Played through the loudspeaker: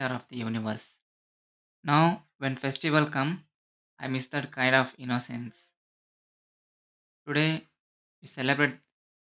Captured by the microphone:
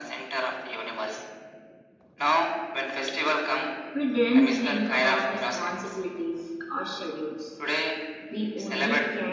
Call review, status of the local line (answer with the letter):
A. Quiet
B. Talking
B